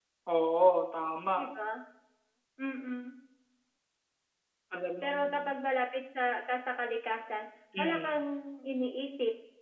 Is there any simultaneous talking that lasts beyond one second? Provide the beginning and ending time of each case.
none

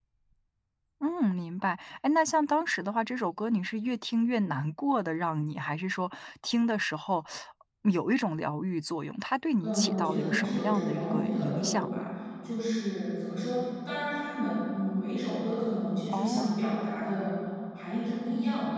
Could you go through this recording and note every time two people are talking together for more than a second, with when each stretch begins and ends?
9.6-12.1

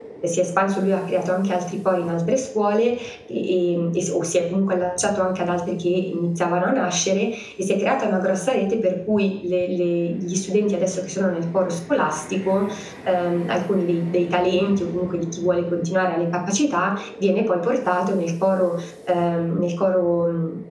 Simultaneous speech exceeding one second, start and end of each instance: none

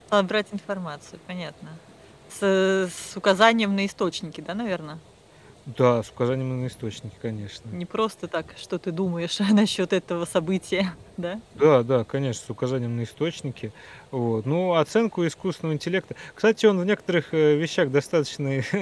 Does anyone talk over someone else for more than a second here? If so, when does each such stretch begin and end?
none

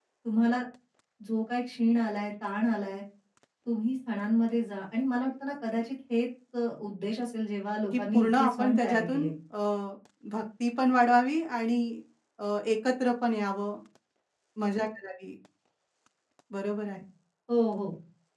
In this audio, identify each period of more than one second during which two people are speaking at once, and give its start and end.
7.9-9.3

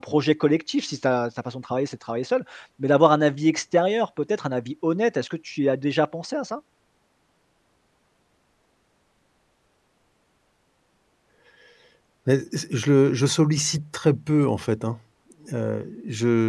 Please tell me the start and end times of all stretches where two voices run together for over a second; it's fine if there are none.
none

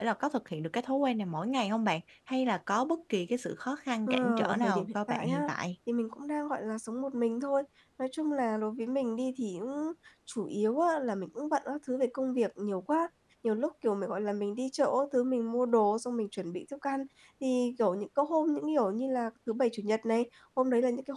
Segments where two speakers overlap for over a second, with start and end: 4.1-5.5

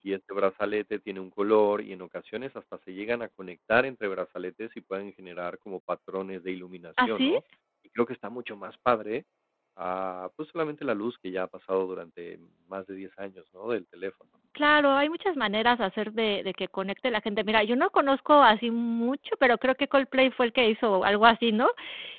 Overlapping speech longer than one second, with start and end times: none

